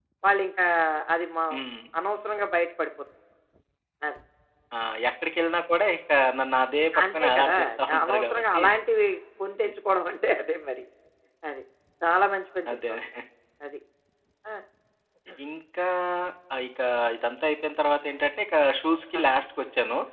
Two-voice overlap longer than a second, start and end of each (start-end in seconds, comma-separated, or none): 7.1-8.6